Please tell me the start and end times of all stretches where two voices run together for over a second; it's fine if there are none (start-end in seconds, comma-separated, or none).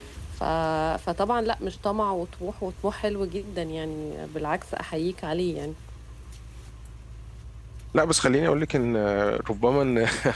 none